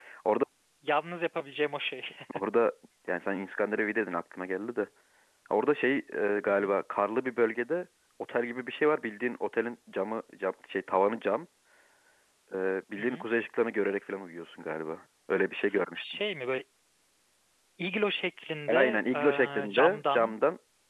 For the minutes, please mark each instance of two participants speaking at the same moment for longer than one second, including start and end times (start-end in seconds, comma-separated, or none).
18.7-20.3